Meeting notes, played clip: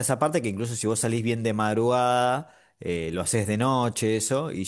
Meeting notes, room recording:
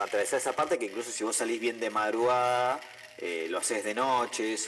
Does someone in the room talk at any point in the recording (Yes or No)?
No